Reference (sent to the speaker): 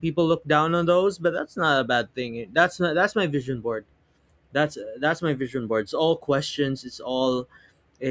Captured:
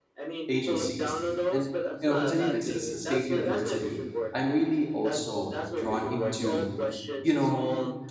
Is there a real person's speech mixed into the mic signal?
Yes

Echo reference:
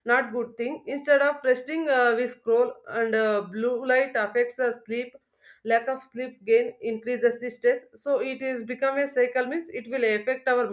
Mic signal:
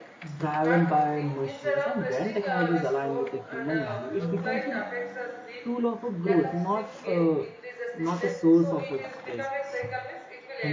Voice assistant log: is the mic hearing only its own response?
No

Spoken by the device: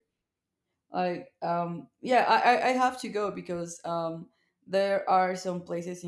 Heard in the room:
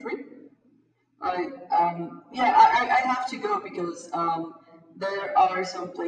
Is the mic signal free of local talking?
Yes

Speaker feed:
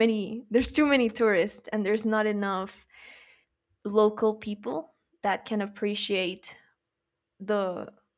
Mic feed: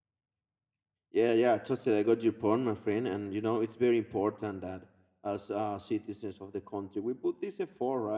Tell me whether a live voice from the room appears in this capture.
Yes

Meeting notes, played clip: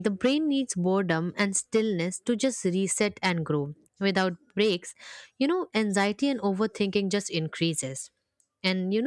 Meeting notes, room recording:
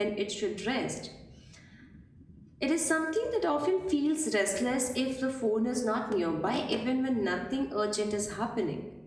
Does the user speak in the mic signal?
Yes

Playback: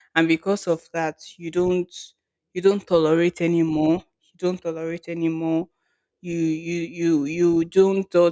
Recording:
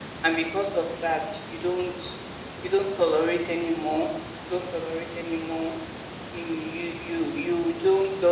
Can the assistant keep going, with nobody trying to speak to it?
Yes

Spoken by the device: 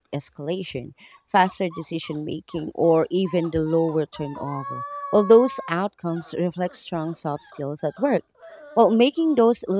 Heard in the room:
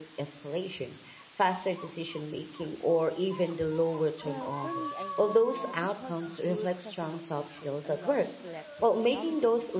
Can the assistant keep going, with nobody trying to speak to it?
No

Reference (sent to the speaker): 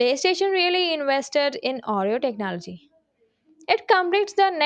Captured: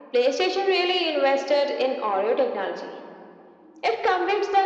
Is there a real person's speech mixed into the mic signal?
No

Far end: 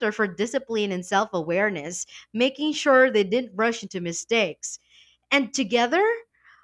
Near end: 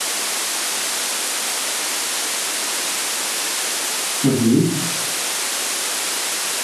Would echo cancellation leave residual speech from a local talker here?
Yes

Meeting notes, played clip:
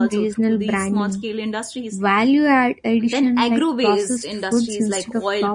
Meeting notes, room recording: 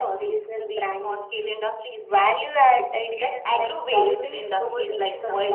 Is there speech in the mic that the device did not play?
Yes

